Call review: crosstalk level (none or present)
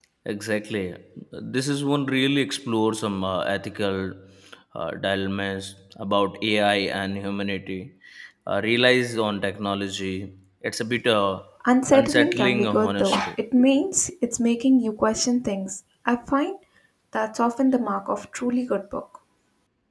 present